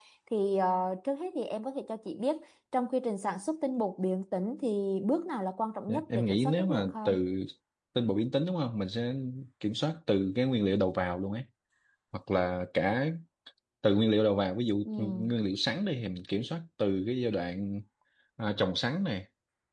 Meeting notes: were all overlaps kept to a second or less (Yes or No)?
No